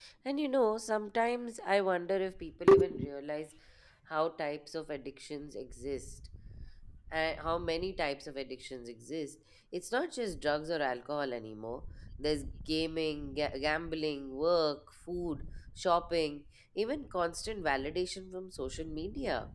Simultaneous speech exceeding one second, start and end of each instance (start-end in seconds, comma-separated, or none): none